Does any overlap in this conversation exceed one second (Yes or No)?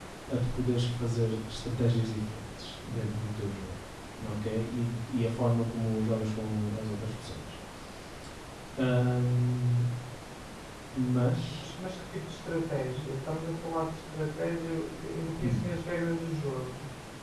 No